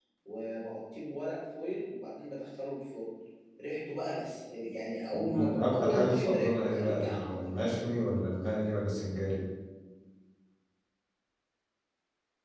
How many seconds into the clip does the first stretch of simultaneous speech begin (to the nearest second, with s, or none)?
5 s